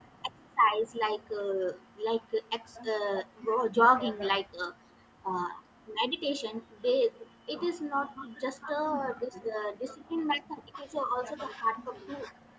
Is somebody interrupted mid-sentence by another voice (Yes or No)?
Yes